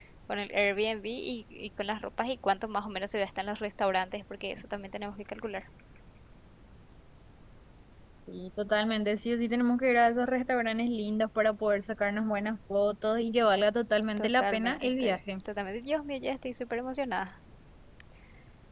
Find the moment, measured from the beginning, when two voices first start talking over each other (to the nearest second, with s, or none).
14 s